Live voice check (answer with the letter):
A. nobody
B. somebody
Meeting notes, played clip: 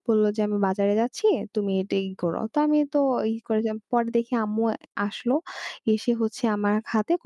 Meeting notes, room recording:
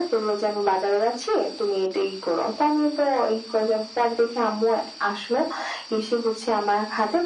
A